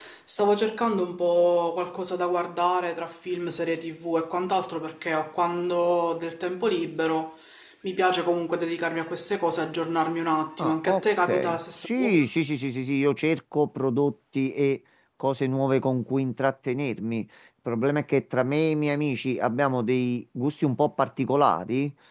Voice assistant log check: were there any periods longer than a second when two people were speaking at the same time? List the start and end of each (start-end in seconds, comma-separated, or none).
10.6-12.2